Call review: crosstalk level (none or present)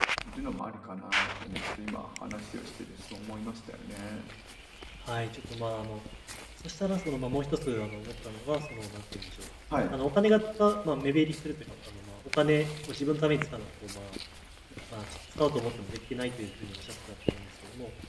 none